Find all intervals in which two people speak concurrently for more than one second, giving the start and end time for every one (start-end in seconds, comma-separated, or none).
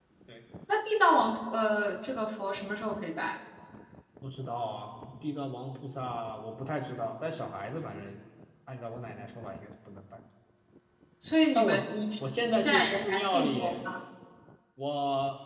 12.4-13.8